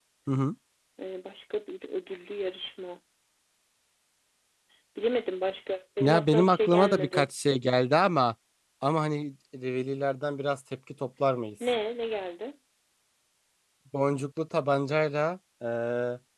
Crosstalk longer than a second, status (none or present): present